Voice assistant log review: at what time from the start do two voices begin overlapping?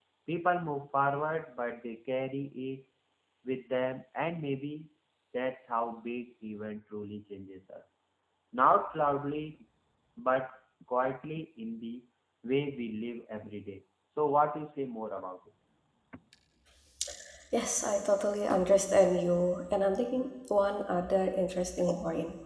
none

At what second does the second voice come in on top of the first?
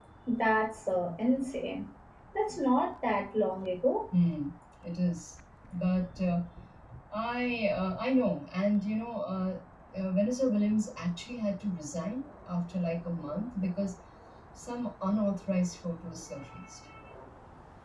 none

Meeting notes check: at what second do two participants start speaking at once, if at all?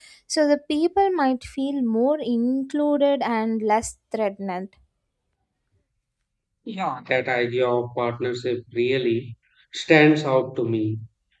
none

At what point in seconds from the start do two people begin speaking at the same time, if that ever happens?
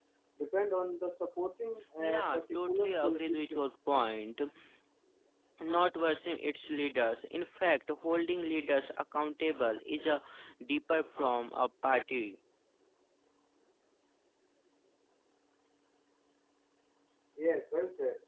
2.0 s

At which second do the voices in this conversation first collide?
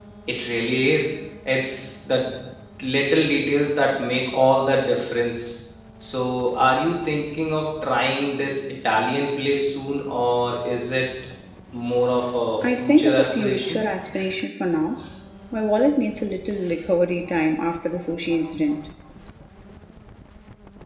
12.6 s

